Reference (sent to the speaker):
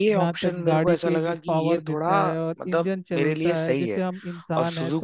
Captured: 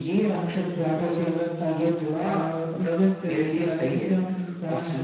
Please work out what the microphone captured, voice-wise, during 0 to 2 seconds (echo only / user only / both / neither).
echo only